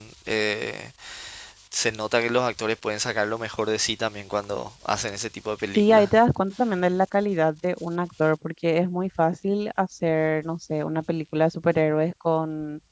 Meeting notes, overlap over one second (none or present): none